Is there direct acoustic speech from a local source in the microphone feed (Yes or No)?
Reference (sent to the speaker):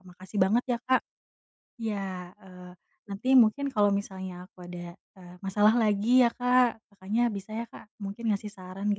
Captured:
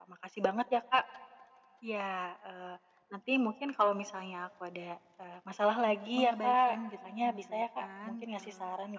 Yes